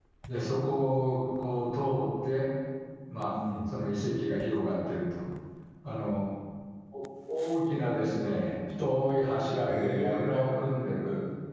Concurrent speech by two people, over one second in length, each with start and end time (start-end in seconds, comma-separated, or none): 9.7-10.9